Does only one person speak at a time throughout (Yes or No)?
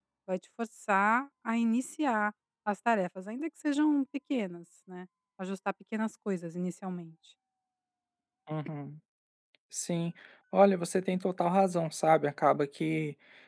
Yes